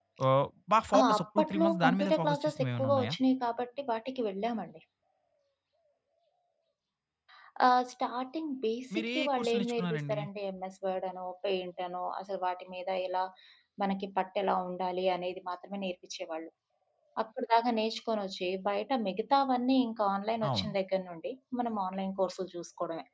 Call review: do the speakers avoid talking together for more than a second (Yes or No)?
No